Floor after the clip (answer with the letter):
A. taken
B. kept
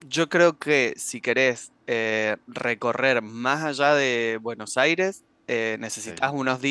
B